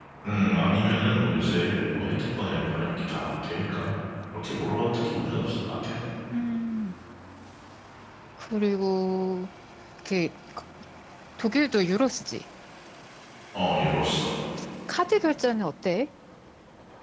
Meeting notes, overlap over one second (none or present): none